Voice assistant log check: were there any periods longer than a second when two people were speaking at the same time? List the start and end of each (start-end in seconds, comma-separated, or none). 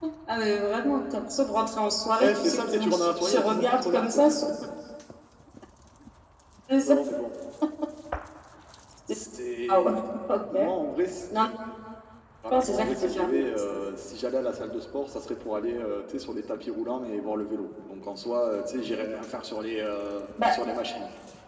2.2-4.2, 12.5-13.8